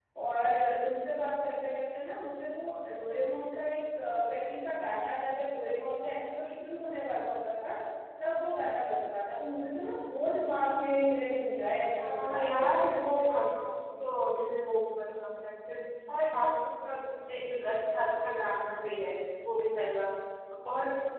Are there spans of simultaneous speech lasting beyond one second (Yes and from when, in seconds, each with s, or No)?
Yes, from 12.0 s